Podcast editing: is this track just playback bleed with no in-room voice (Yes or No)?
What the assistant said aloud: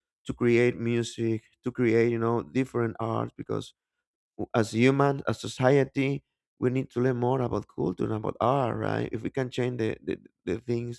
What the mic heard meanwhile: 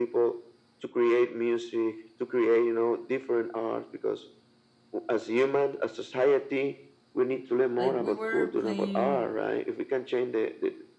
No